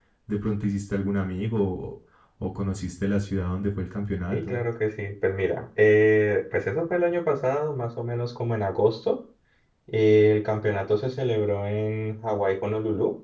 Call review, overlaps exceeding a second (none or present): none